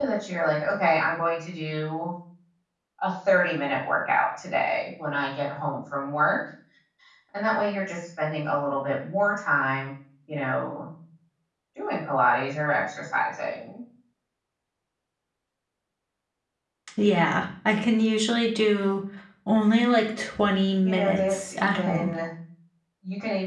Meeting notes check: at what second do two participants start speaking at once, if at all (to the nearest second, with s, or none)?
21 s